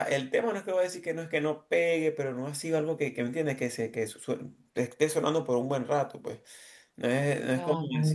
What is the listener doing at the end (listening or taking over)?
listening